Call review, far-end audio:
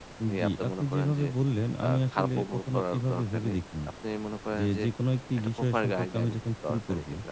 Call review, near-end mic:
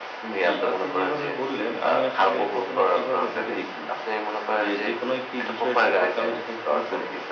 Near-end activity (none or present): none